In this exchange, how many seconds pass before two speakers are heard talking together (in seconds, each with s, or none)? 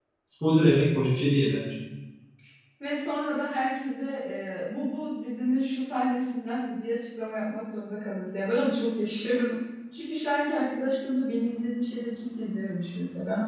none